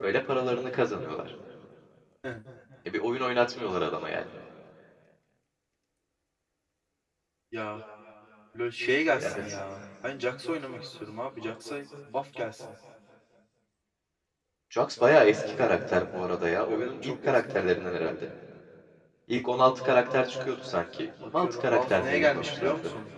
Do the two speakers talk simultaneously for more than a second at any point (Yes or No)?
Yes